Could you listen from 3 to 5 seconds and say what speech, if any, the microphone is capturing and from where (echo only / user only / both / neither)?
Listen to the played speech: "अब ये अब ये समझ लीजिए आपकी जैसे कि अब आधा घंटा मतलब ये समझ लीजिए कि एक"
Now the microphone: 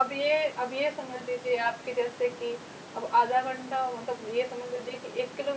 echo only